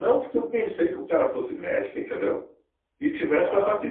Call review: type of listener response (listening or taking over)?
listening